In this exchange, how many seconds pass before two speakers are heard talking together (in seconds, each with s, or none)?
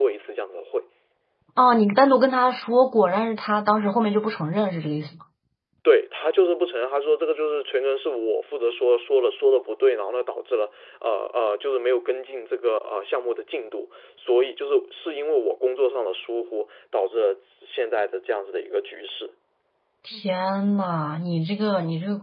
none